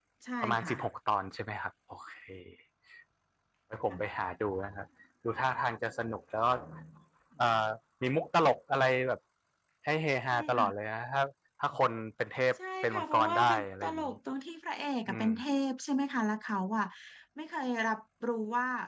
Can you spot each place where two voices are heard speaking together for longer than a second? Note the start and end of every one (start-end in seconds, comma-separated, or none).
12.8-14.1